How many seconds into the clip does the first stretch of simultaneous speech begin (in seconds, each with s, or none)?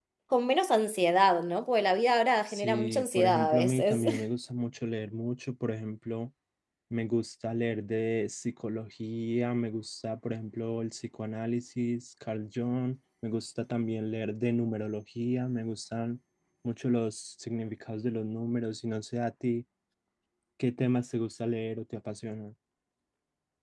2.5 s